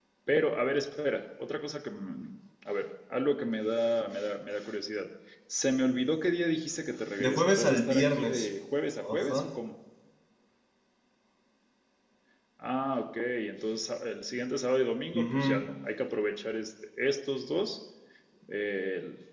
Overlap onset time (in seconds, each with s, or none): 7.2 s